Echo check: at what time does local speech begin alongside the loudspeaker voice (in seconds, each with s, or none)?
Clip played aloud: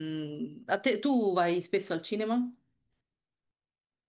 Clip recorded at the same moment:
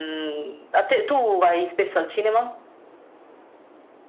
none